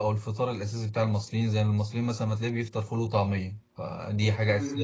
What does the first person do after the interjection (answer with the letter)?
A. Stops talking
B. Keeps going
B